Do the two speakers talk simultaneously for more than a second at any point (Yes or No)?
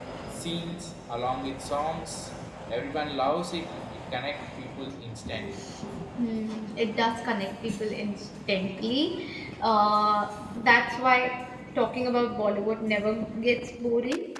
No